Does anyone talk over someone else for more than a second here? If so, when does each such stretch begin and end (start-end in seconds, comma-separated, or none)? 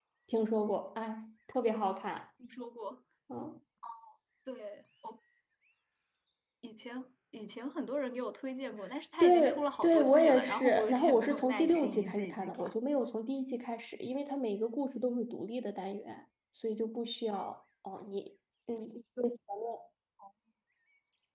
9.2-12.7